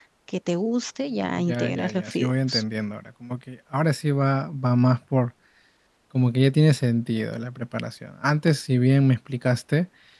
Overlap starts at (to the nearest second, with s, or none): 1 s